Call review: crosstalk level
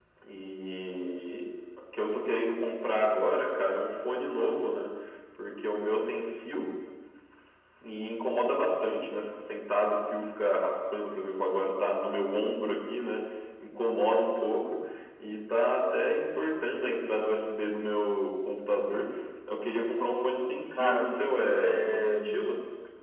present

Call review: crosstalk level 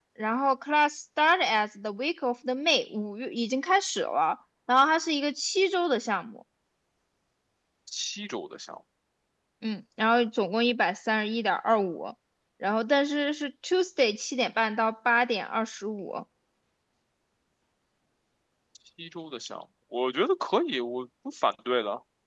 none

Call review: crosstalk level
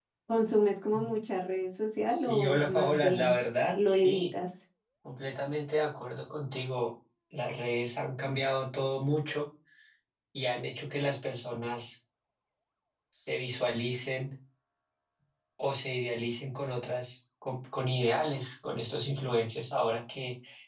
present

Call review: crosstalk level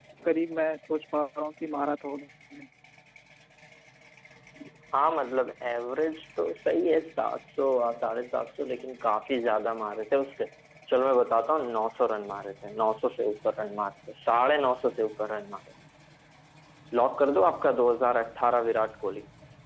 none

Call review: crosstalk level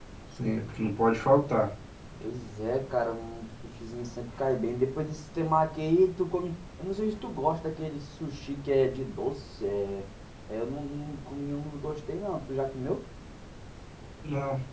none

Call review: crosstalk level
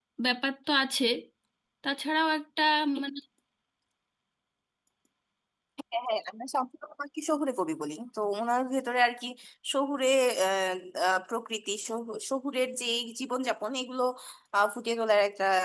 none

